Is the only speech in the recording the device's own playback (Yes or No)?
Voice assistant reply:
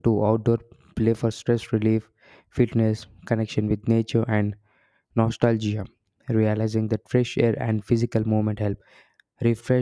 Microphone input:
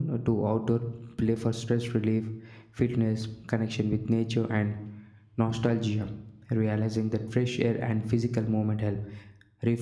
Yes